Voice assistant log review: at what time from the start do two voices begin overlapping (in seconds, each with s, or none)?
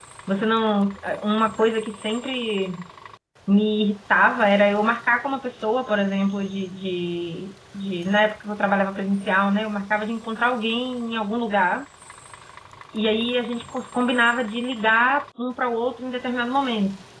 none